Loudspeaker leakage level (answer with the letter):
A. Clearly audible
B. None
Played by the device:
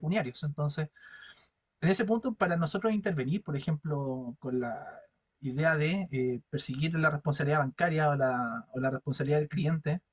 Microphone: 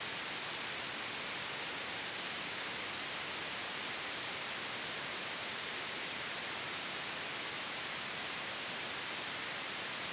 B